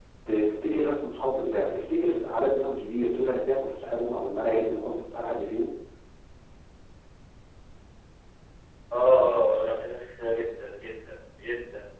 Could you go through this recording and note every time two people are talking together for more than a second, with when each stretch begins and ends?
none

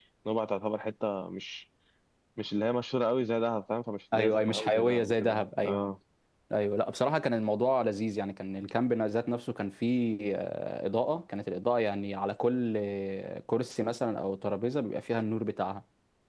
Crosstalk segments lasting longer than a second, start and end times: 4.1-5.8

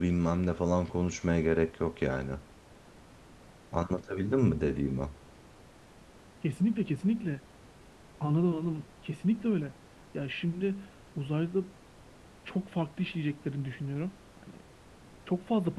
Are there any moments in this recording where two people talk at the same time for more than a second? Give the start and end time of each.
none

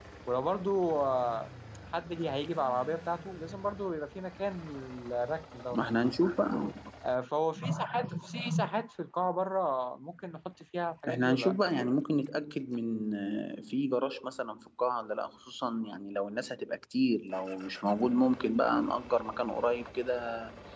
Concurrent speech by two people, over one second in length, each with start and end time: none

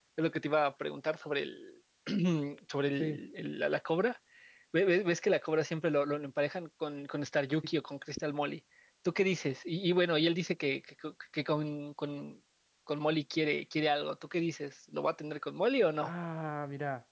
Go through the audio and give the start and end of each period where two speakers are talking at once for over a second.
none

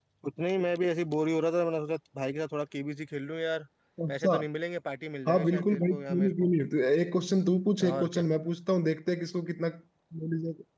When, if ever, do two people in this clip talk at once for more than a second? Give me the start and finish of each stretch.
5.3-6.5

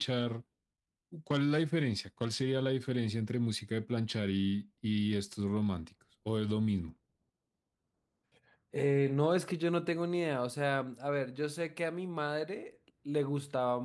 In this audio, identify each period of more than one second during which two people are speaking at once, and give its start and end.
none

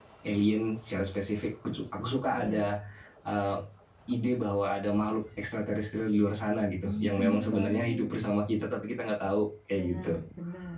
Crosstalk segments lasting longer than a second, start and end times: 6.9-8.2

